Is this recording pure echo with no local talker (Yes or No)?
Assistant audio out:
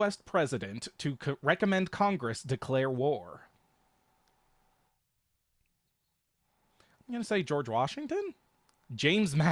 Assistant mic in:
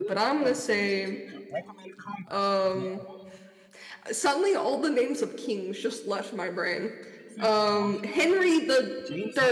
No